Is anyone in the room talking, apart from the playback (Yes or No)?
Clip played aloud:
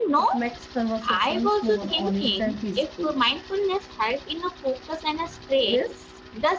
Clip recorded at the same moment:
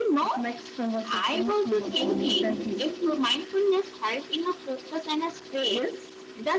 Yes